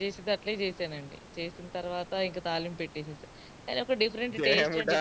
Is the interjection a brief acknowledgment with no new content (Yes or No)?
No